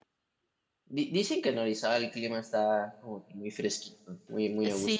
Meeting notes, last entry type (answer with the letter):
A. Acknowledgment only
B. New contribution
B